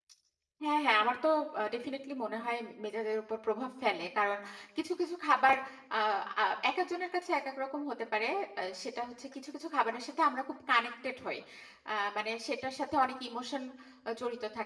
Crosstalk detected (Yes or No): No